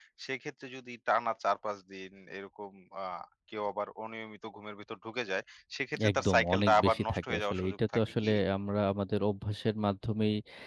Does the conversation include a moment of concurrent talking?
Yes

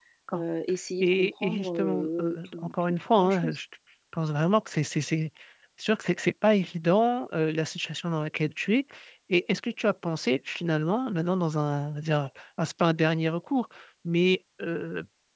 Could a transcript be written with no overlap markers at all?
No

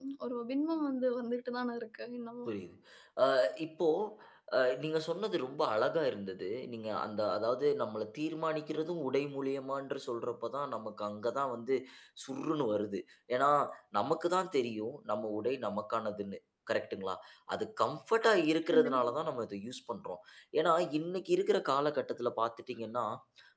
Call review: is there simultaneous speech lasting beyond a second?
No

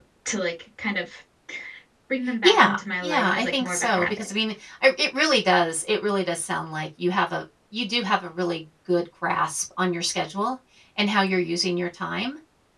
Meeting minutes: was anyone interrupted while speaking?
Yes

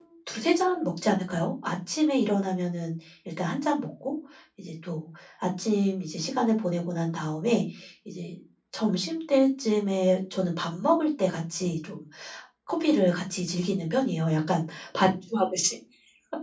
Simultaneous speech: No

